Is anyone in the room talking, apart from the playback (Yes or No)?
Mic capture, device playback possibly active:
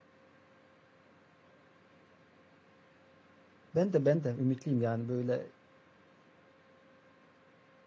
Yes